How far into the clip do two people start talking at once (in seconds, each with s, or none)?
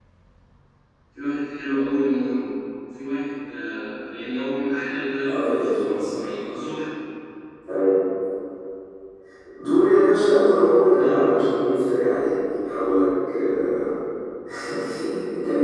5.3 s